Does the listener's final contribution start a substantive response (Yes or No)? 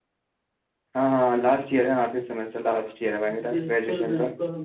Yes